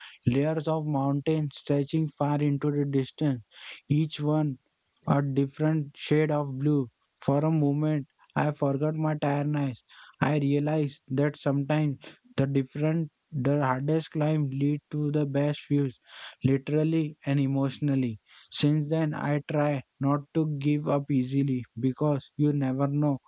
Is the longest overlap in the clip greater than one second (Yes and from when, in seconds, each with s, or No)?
No